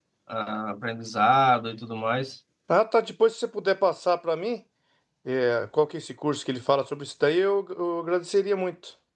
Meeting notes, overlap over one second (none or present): none